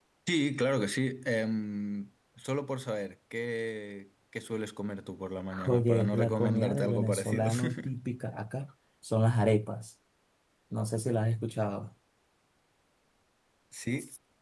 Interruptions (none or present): present